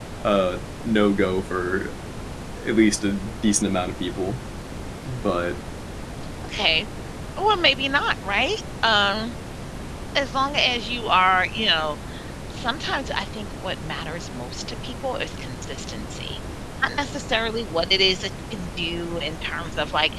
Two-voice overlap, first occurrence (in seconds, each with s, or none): none